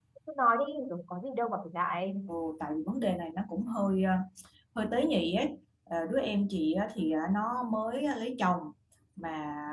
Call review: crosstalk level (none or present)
none